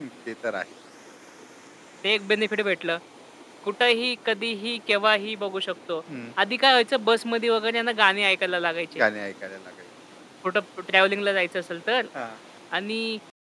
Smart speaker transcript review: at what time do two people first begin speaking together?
none

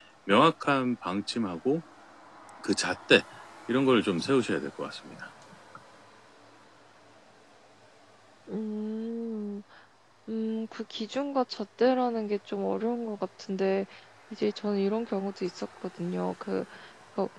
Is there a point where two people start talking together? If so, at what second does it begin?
none

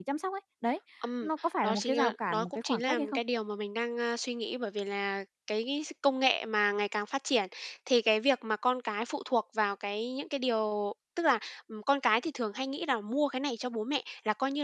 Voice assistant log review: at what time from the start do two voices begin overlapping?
1.6 s

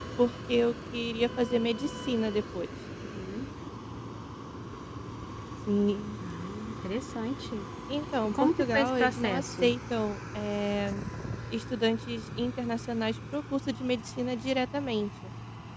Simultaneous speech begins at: 8.4 s

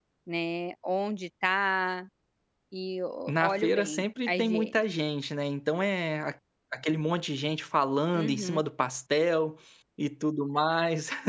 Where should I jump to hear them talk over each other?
3.3 s

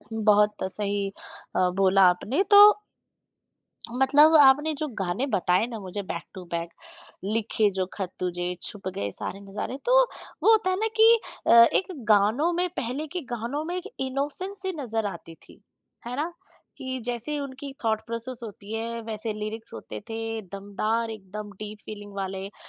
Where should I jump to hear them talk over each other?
none

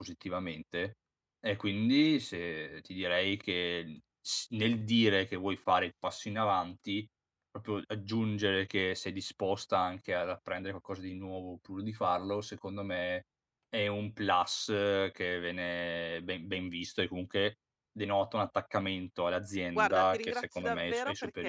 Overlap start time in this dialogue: 19.8 s

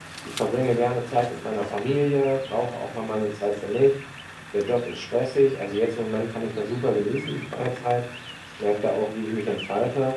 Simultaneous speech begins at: none

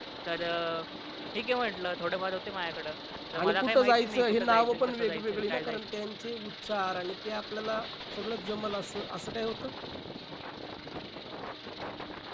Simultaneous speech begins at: 3.4 s

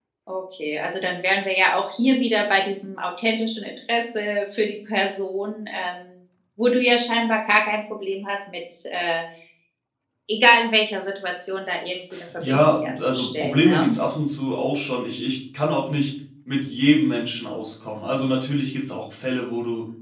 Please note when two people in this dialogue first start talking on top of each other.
12.4 s

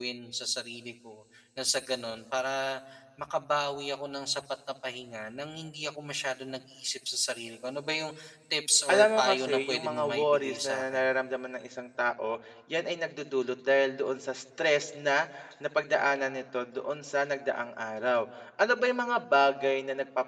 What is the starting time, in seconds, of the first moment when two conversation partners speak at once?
8.9 s

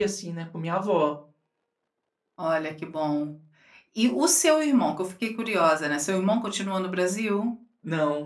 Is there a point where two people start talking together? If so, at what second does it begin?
none

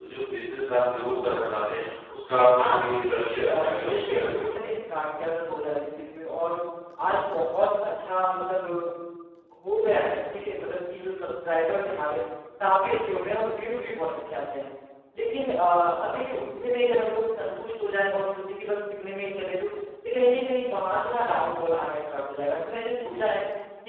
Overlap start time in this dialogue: 2.5 s

